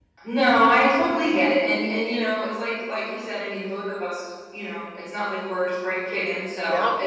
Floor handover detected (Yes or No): No